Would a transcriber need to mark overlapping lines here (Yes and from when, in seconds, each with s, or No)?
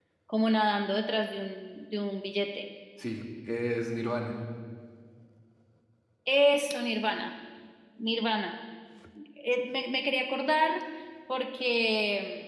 No